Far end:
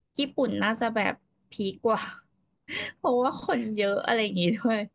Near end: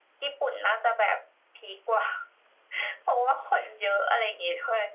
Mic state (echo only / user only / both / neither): echo only